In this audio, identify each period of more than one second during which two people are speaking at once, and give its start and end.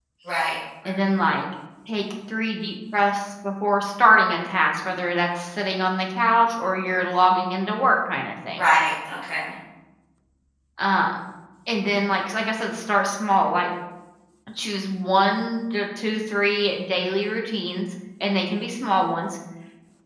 none

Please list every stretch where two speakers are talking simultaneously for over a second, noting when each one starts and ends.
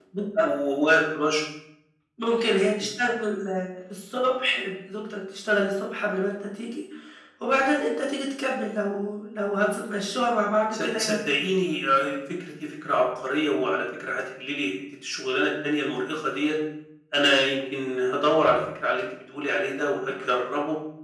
none

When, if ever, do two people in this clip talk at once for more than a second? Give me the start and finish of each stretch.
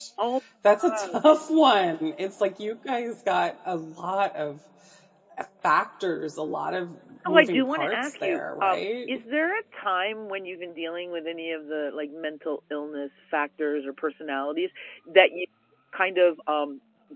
7.2-8.8

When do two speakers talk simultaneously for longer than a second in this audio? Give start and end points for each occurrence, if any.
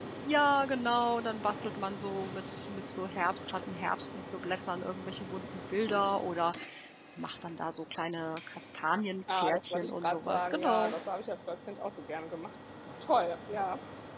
9.3-10.9

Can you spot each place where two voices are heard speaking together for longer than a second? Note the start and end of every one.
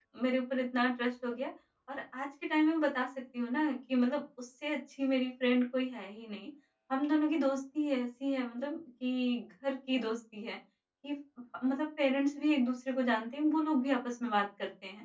none

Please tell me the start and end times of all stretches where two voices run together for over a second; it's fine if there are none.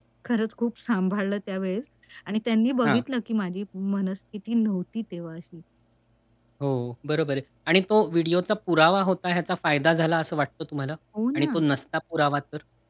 none

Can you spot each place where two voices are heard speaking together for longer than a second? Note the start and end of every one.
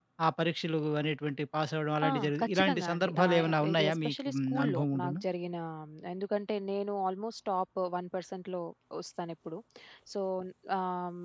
2.1-5.2

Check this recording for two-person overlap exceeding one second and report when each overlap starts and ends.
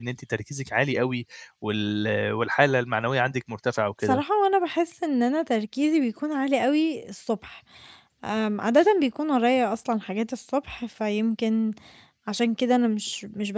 none

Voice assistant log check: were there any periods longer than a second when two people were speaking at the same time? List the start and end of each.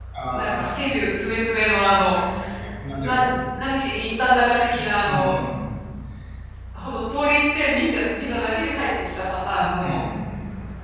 none

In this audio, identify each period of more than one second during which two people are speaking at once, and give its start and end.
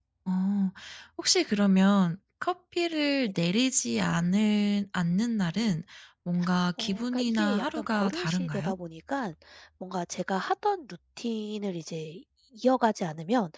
6.8-8.7

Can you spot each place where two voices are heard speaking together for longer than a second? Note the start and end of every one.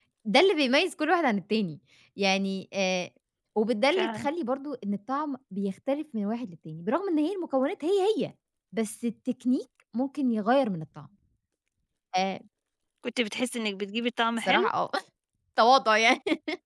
none

